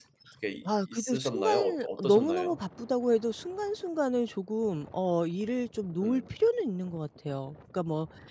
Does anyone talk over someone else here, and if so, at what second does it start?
0.9 s

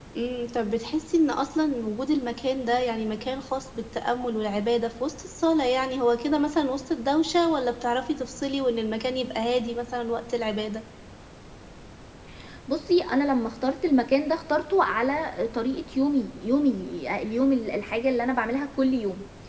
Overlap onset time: none

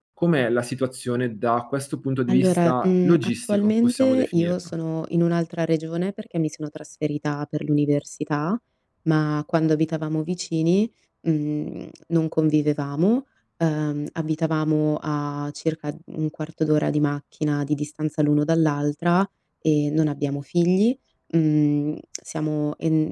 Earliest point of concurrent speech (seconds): 2.3 s

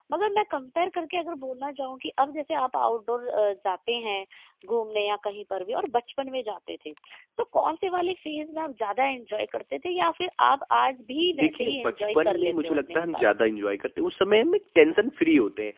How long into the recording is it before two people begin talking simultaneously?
11.3 s

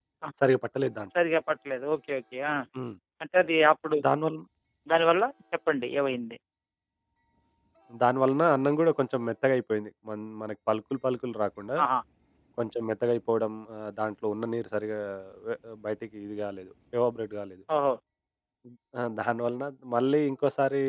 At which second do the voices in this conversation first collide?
none

